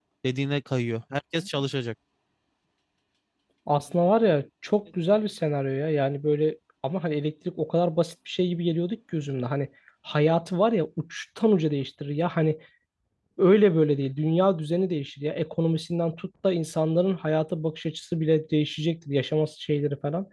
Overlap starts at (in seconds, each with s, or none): none